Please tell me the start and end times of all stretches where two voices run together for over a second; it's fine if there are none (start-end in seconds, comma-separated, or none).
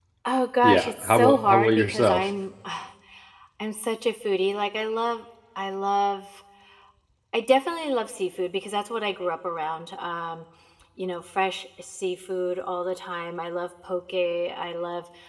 0.6-2.2